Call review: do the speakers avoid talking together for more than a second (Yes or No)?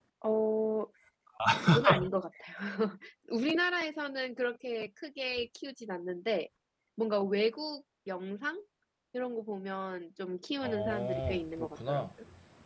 No